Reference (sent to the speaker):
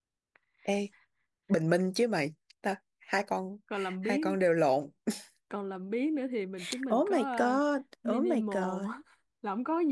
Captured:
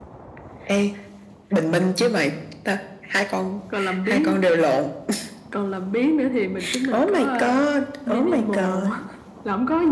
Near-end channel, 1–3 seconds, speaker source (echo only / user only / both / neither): echo only